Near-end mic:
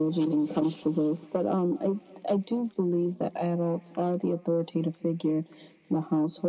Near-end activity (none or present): none